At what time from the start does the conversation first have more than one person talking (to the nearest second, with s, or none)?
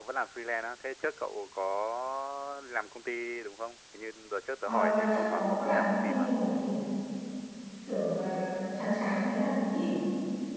5 s